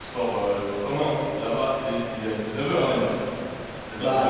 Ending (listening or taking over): taking over